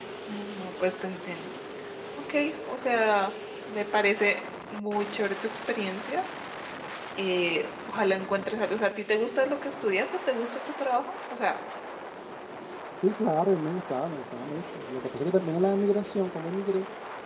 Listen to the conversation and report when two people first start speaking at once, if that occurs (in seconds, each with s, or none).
none